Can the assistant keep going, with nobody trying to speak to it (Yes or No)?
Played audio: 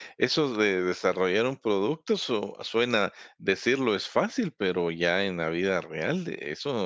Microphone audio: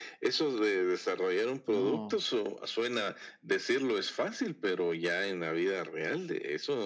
No